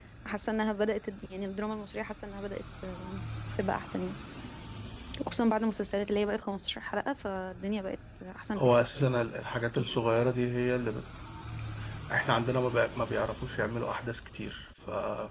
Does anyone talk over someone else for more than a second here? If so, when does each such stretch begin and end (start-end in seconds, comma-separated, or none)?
none